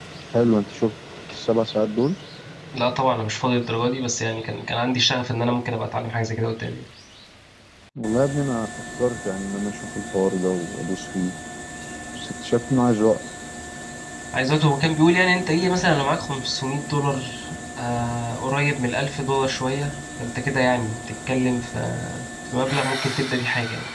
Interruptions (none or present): none